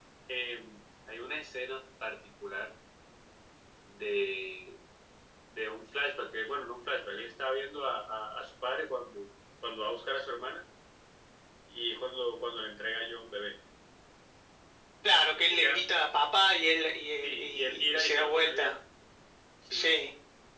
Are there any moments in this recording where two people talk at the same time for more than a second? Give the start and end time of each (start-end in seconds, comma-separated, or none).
17.2-18.8